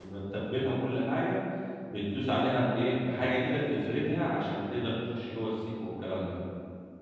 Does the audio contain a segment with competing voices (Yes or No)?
No